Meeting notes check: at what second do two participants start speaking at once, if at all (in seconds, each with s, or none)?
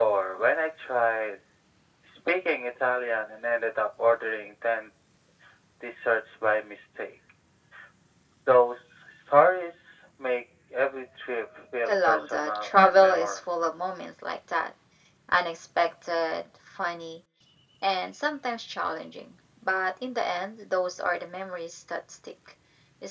11.9 s